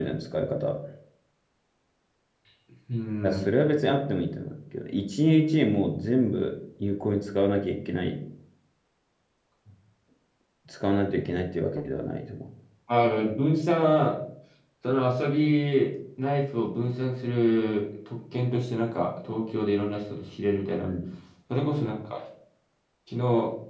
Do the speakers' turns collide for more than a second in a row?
No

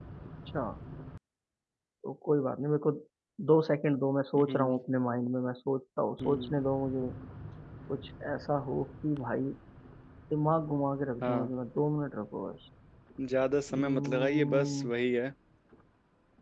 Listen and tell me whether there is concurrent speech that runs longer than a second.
Yes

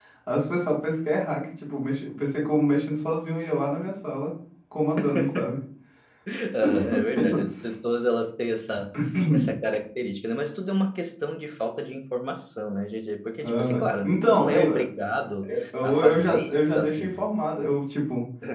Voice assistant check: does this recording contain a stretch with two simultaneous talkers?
Yes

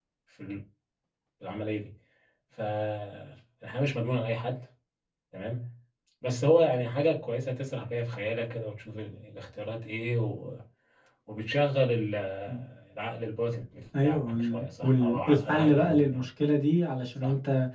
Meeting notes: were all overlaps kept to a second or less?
No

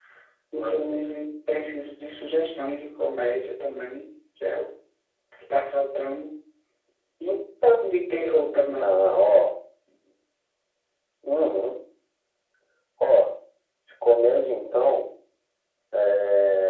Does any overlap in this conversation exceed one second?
No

